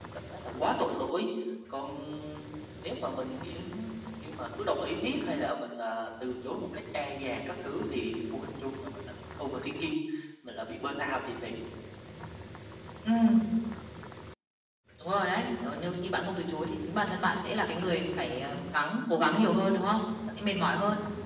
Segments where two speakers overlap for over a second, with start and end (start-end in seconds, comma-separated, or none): none